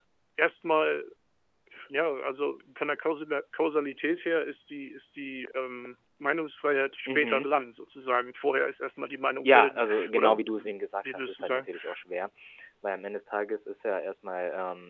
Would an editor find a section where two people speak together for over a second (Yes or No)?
Yes